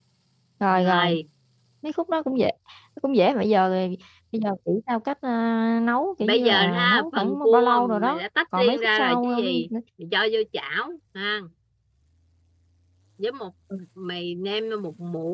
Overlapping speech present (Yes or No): Yes